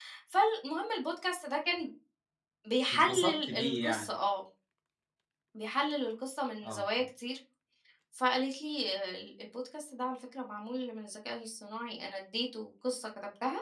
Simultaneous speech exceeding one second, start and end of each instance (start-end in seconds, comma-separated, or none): 2.9-4.1